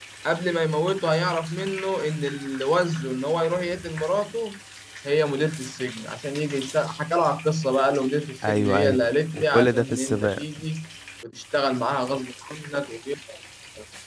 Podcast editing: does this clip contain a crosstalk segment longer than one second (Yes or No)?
Yes